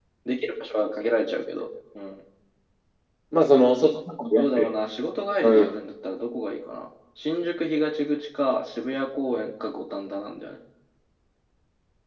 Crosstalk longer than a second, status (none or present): none